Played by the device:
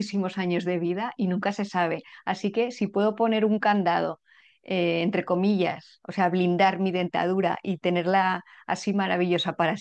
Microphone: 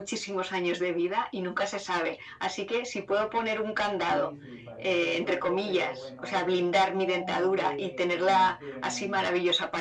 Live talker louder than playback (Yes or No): No